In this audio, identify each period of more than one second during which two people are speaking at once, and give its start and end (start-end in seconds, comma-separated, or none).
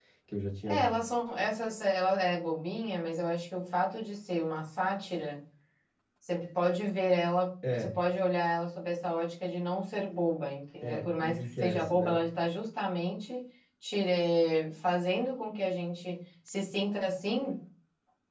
10.8-12.2